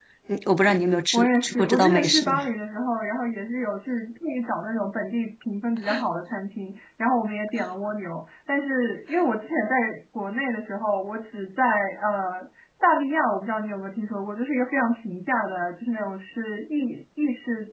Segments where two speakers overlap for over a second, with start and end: 1.1-2.4

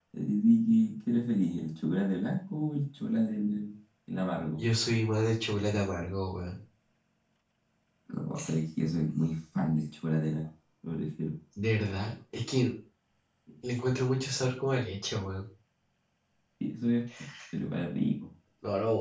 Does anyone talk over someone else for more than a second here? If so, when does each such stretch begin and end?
none

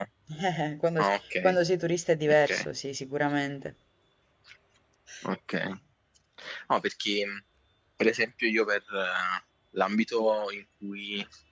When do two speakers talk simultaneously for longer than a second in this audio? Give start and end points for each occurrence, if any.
none

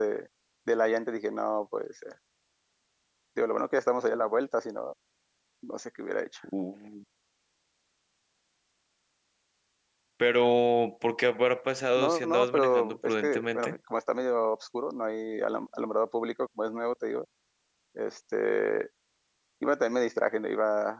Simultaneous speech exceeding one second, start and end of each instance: 11.9-13.8

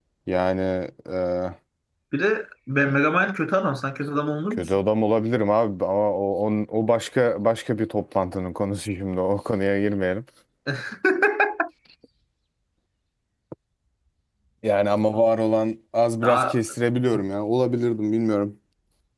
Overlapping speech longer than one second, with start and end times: none

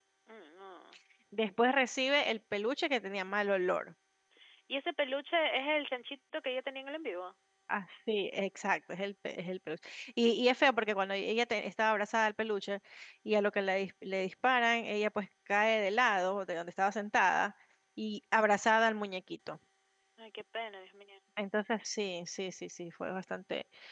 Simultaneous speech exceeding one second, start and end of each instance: none

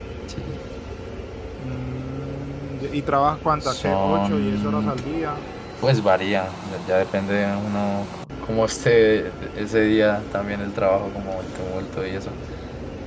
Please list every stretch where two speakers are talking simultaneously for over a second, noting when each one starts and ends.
3.6-5.0

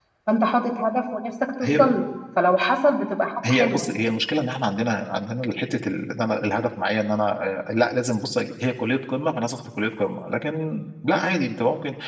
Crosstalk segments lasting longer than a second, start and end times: none

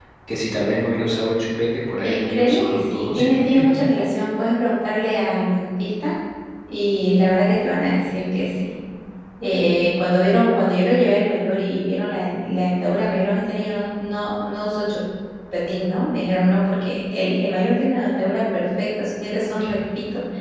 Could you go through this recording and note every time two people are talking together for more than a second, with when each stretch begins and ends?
2.0-3.9

